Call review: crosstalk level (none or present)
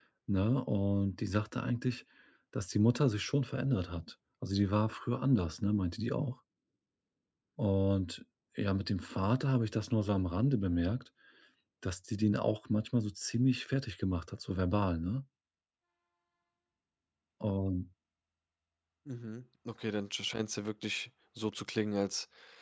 none